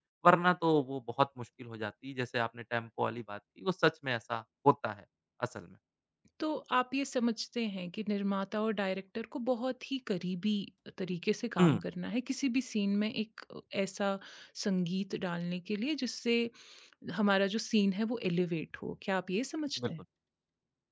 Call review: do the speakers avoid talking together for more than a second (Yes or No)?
Yes